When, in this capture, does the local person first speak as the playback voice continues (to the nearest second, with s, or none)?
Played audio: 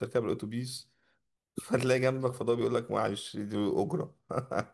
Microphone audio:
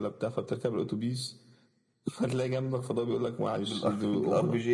4 s